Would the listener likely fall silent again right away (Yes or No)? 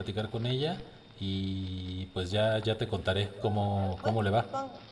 No